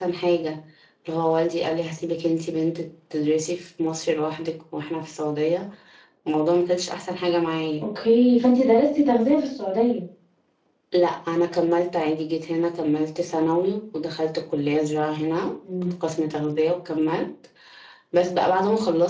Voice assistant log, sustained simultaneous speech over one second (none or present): none